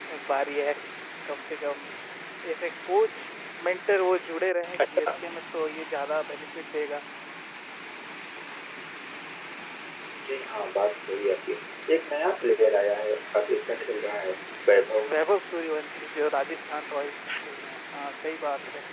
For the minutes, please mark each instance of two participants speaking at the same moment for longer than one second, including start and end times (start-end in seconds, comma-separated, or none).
none